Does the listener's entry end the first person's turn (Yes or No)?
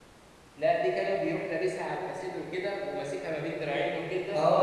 Yes